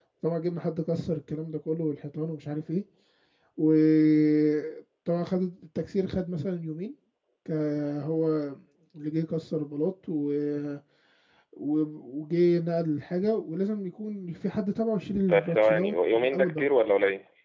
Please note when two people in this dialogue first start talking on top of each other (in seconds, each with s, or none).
15.3 s